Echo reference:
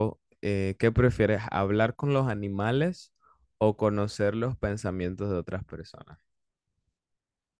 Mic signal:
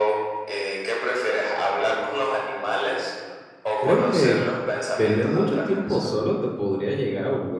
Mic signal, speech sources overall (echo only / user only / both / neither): both